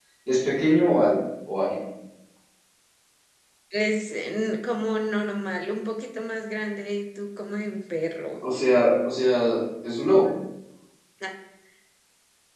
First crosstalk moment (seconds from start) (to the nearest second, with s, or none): none